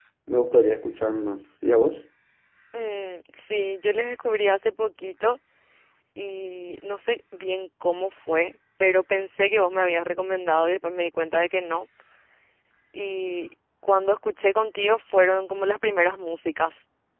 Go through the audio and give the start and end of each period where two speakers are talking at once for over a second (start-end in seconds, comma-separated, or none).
none